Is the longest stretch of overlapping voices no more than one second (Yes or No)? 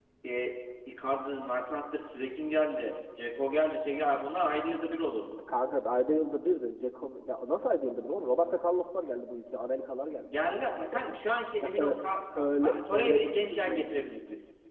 No